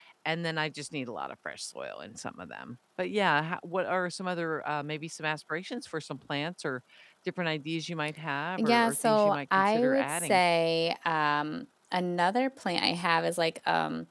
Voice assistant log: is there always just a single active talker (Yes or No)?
No